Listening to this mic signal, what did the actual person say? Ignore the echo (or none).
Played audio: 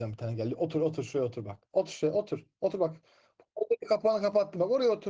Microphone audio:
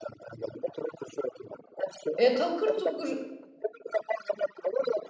e, takır tukur